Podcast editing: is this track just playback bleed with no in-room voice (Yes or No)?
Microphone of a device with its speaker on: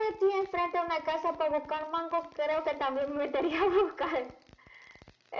Yes